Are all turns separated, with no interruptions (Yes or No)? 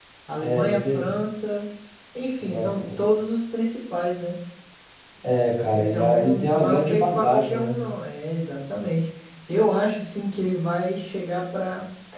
No